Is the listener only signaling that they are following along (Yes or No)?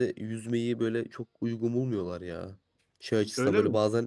Yes